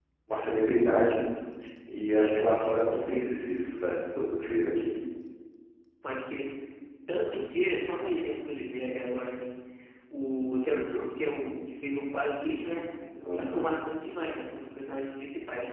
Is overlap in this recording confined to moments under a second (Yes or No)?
Yes